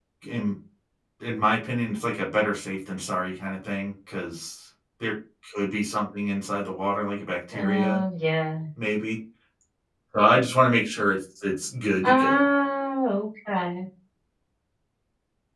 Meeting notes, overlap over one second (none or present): none